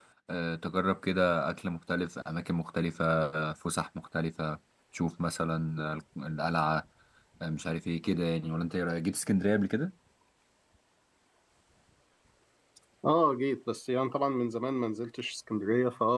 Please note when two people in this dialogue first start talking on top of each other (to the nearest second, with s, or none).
none